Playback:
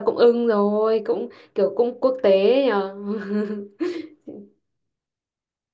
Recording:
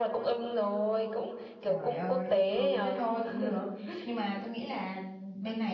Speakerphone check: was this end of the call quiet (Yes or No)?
No